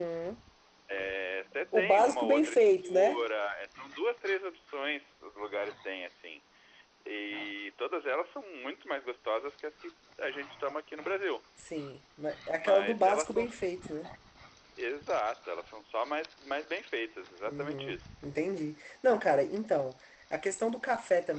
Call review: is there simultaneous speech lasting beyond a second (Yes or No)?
Yes